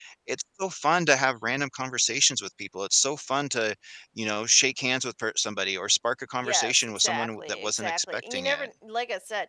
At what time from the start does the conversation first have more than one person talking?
6.4 s

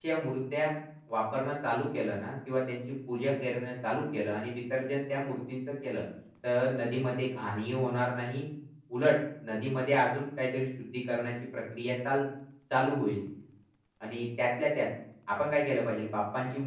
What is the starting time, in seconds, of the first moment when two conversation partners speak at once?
none

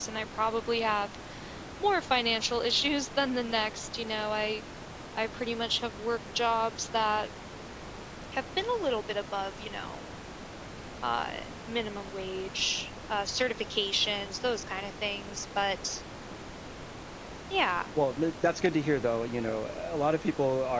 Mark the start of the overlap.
none

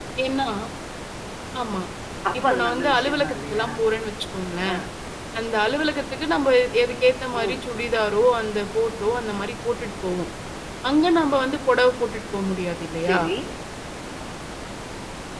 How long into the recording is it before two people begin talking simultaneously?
2.4 s

